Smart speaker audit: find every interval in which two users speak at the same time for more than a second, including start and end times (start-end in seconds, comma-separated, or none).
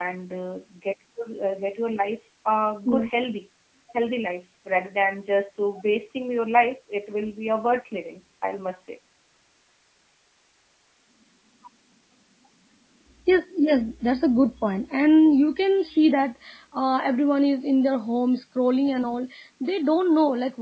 none